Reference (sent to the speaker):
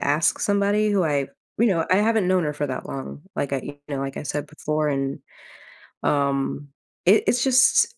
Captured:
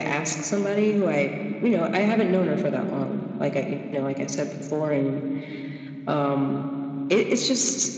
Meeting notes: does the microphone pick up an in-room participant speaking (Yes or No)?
No